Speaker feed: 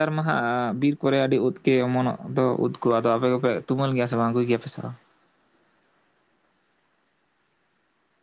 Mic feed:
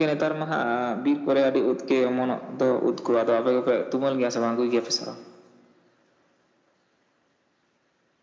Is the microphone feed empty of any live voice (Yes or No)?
Yes